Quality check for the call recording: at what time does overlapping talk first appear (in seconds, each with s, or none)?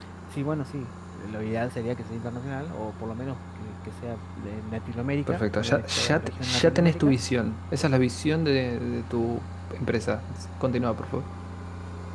5.3 s